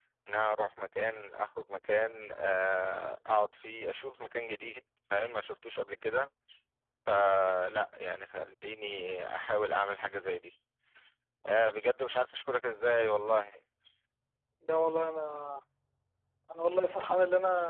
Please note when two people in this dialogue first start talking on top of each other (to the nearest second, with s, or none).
none